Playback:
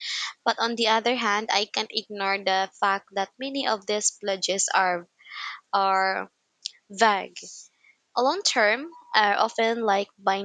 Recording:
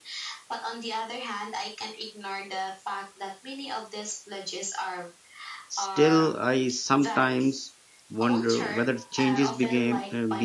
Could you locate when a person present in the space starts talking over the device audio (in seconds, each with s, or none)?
5.7 s